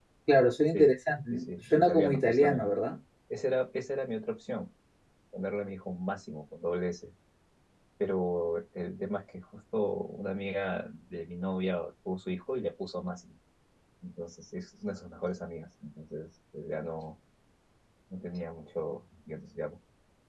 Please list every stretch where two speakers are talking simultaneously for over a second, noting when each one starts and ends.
1.3-2.8

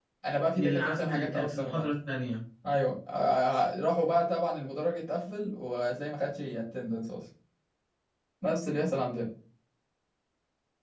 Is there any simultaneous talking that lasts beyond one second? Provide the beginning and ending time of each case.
0.5-1.8

